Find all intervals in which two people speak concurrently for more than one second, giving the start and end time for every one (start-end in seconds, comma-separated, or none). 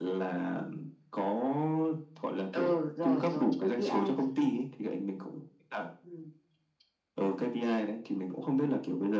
2.5-4.5